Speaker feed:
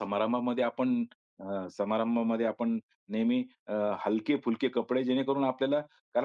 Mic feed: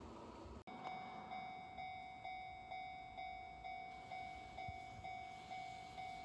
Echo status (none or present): none